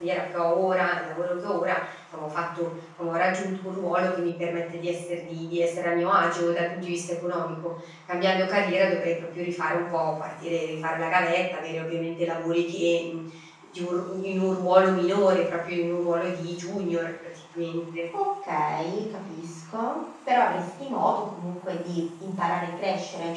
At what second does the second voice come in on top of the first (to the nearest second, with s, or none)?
none